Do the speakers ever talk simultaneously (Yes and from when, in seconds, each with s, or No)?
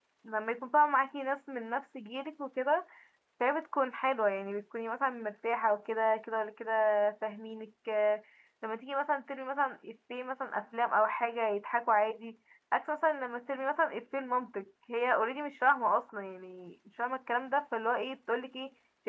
No